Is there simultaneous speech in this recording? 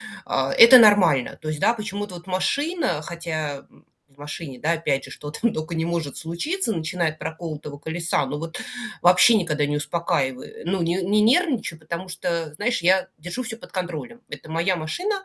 No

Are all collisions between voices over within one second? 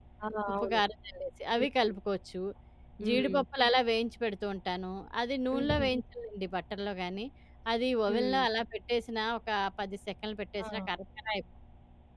Yes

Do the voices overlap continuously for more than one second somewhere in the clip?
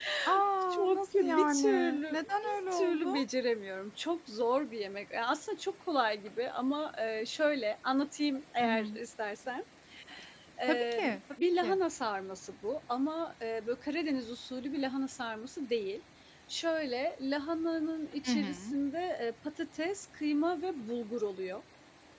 Yes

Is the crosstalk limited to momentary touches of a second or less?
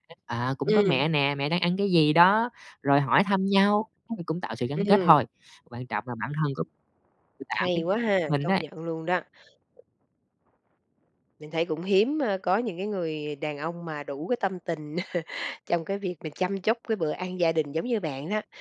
Yes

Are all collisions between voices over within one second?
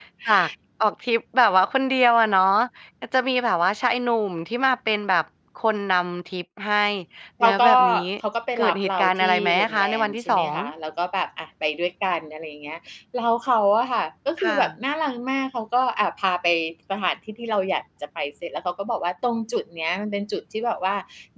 No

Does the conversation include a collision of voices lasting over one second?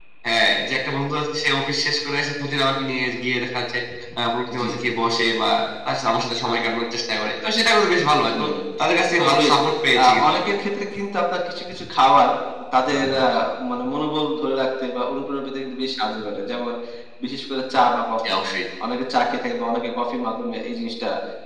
No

